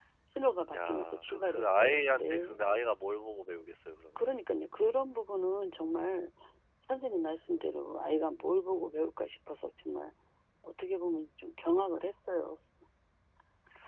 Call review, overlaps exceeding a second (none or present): present